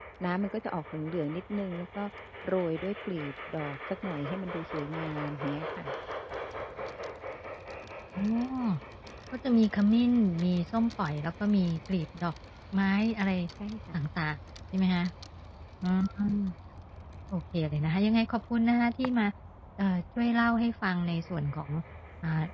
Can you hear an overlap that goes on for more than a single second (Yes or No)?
No